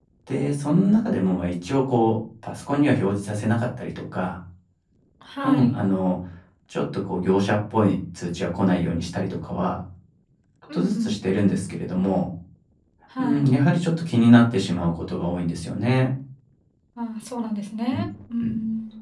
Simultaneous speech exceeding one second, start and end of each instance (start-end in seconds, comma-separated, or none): none